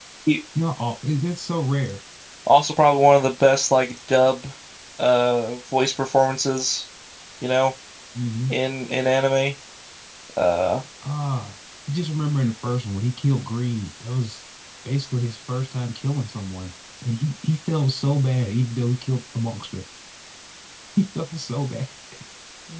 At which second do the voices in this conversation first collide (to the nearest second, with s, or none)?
none